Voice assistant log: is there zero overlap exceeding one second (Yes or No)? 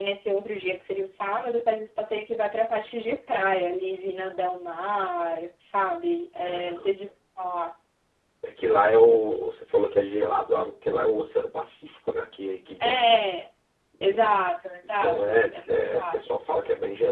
No